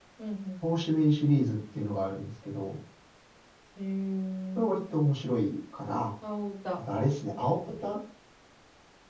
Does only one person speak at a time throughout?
Yes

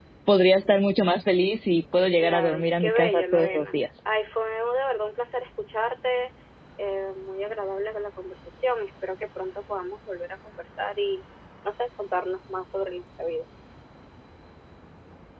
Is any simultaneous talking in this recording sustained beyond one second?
Yes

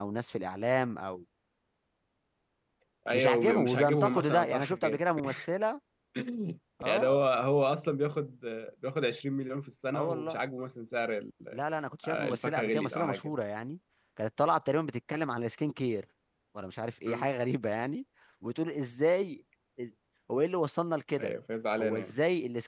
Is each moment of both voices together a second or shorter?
No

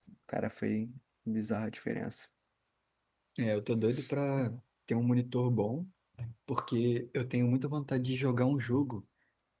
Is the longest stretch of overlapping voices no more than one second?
Yes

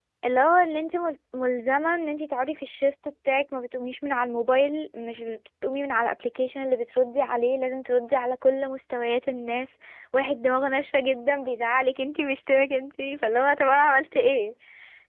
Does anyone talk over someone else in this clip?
No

